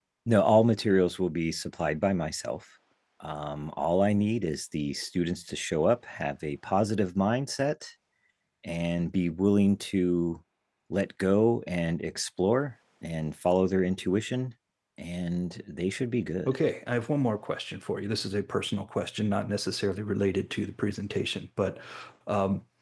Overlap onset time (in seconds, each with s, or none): none